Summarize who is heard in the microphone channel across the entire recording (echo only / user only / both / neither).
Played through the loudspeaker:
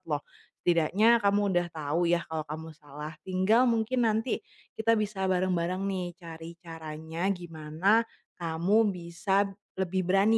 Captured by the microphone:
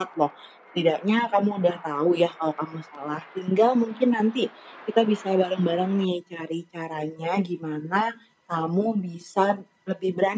echo only